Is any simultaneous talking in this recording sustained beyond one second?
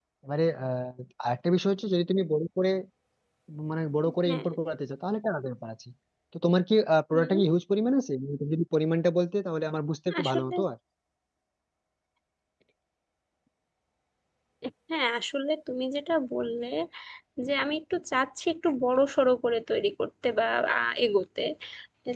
No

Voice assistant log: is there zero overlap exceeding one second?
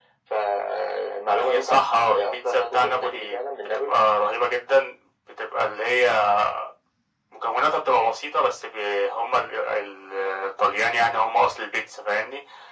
No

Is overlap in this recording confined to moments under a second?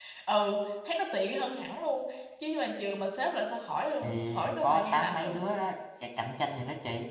No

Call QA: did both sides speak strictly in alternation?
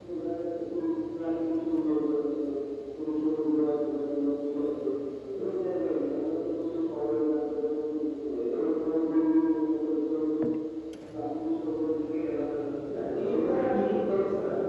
No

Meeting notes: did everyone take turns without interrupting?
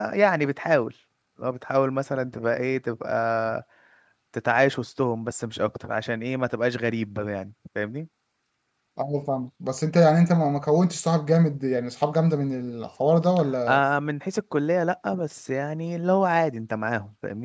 Yes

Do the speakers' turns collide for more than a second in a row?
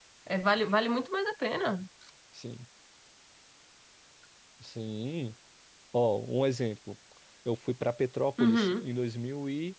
No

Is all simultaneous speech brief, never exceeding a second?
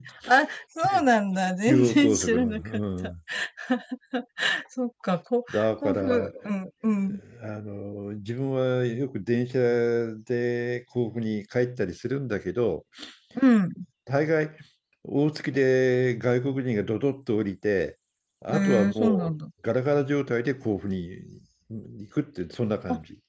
No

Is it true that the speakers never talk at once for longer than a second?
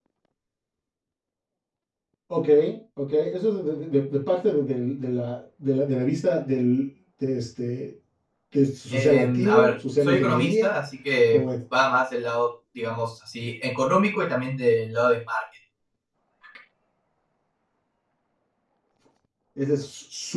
No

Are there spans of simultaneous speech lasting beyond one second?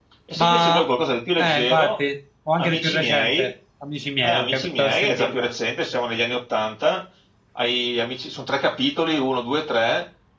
Yes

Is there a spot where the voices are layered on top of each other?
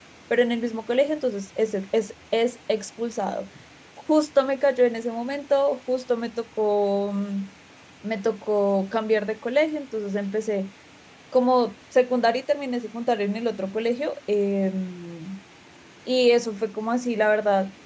No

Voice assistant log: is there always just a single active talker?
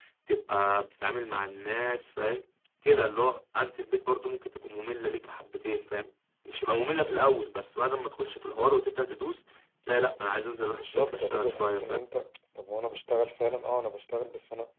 No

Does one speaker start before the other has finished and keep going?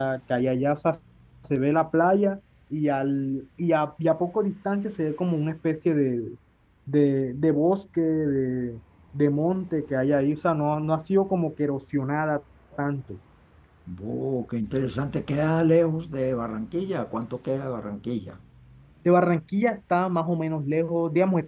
No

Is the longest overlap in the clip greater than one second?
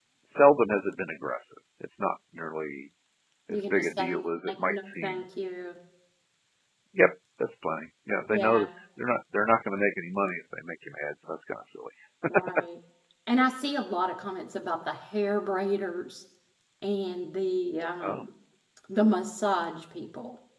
Yes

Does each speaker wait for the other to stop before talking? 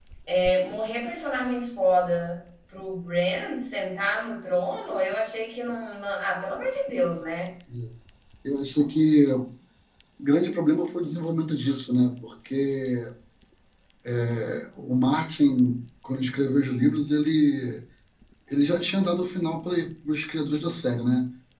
Yes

